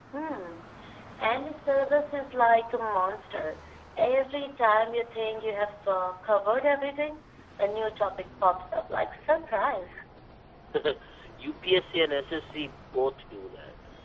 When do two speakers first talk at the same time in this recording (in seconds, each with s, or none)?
none